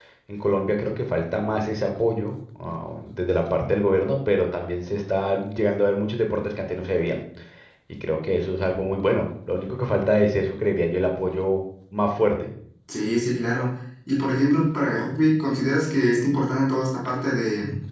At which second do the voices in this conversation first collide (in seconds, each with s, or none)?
none